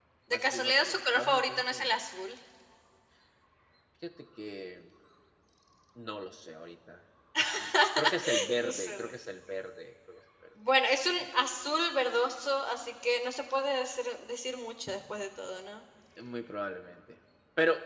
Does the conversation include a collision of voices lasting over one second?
Yes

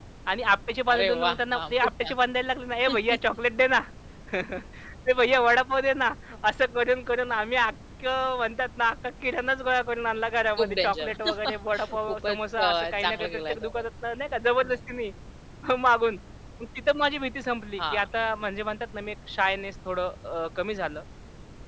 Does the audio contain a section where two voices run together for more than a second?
Yes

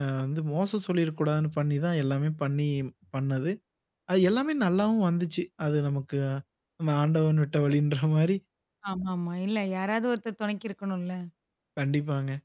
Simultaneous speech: No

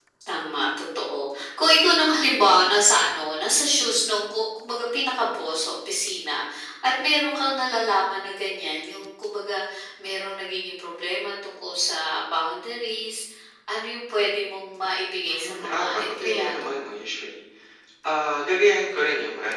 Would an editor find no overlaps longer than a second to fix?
No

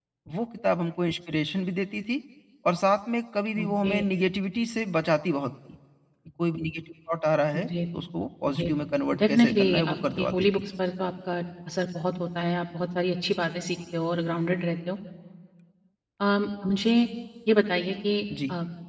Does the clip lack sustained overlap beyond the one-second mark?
No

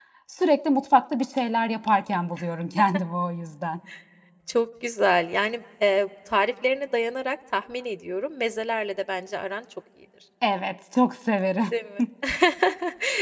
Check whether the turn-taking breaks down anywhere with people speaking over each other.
No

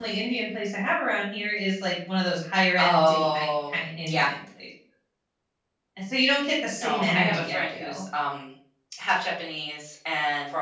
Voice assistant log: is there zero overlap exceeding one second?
No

